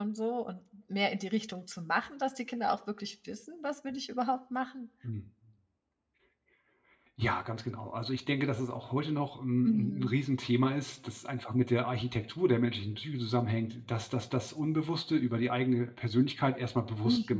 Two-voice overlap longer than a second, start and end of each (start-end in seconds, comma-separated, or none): none